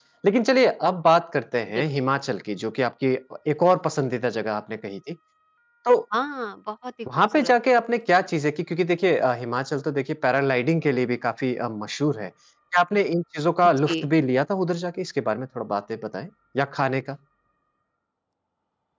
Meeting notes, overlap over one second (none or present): none